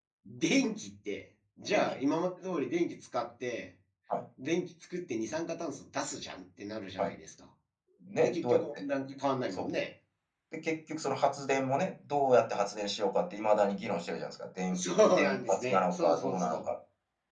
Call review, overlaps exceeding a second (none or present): present